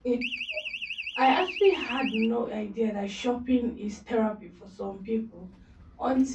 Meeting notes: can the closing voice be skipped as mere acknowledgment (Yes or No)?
Yes